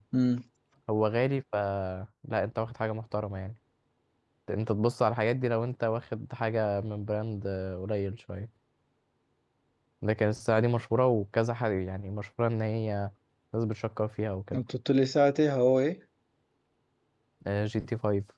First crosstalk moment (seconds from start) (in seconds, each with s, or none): none